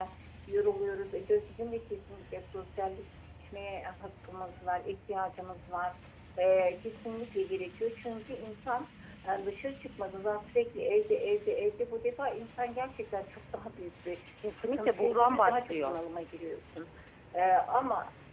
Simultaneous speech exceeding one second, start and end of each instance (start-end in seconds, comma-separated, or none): 14.6-16.0